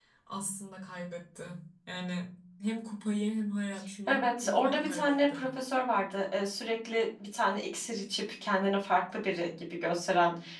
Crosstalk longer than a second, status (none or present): present